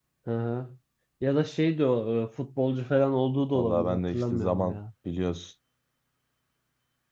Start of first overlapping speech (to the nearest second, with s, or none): 4 s